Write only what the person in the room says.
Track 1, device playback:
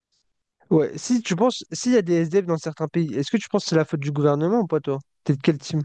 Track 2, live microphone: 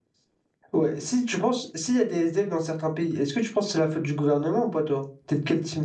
none

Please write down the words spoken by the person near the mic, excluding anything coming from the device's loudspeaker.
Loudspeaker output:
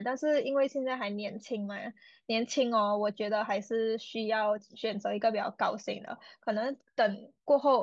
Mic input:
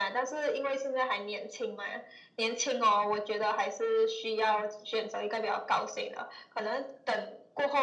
none

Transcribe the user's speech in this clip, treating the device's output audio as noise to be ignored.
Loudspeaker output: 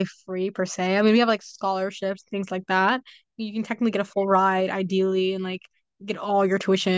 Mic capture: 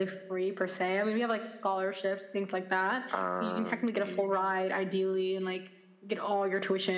and in,

